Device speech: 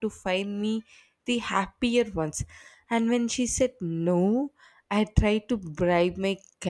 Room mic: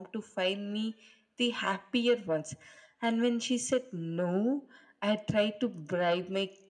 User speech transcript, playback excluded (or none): none